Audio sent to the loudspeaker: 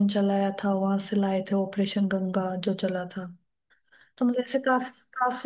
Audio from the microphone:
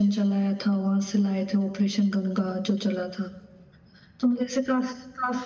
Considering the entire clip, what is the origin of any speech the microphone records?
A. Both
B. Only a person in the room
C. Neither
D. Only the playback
D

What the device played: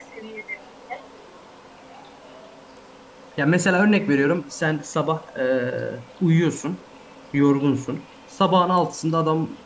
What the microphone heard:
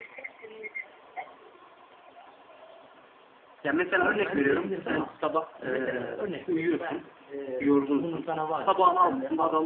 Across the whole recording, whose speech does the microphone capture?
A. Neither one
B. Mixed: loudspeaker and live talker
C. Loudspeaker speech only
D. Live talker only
B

